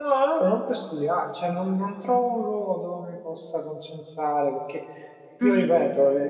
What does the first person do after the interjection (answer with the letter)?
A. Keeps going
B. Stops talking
A